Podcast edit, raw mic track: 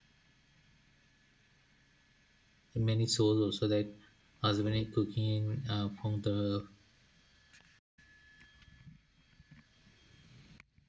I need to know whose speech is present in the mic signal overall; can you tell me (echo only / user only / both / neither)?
user only